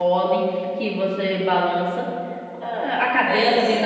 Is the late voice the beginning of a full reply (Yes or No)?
Yes